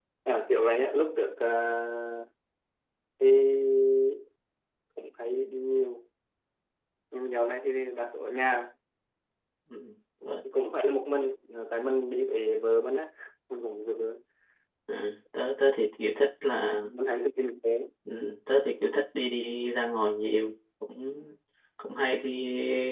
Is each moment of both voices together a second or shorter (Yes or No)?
Yes